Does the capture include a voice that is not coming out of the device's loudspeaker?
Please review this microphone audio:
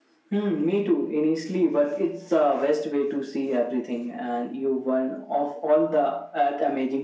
No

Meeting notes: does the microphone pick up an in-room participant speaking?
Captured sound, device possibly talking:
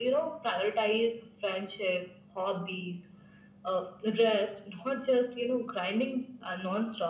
No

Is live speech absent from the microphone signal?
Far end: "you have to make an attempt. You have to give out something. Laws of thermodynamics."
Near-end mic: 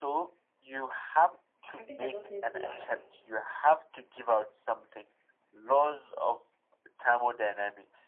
No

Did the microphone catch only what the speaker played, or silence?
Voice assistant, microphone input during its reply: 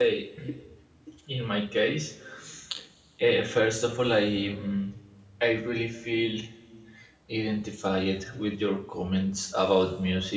No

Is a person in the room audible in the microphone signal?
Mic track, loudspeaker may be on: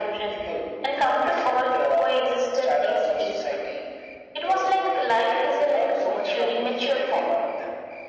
No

